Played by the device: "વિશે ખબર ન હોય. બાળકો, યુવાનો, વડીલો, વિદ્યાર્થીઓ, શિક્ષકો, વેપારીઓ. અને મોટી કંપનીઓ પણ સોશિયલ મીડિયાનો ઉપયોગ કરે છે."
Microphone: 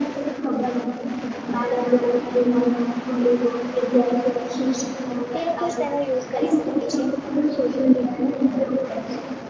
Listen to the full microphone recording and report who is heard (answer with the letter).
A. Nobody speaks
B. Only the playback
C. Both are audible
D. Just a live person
C